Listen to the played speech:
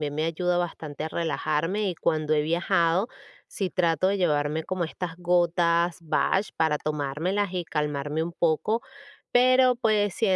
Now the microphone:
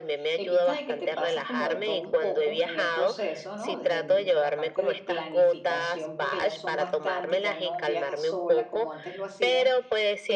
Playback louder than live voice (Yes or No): Yes